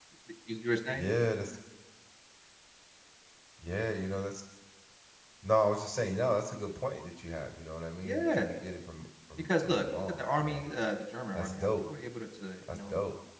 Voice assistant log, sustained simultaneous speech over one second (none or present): present